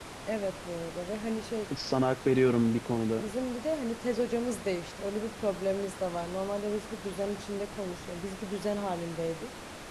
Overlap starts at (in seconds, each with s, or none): none